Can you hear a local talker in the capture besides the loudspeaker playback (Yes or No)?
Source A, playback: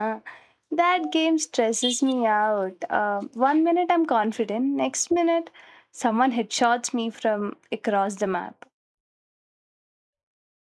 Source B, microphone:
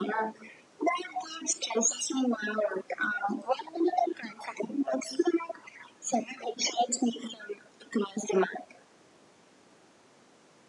No